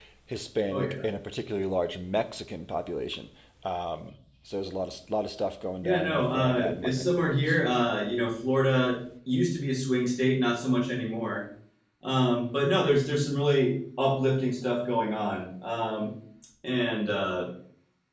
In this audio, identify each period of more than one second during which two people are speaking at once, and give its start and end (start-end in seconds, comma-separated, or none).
5.8-7.6